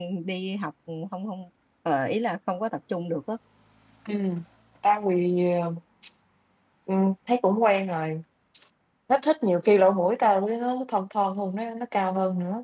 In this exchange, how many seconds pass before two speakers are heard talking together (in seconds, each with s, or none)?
none